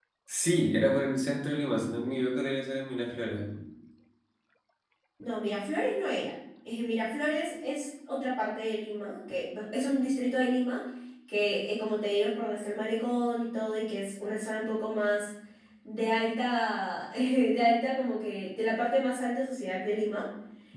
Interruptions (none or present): none